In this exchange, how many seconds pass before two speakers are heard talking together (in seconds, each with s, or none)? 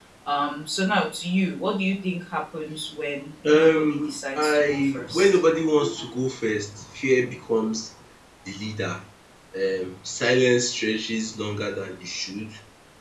3.5 s